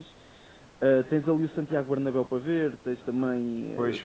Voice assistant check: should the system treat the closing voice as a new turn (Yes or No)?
Yes